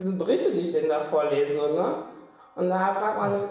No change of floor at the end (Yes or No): Yes